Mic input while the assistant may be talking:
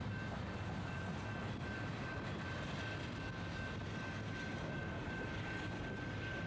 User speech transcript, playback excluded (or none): none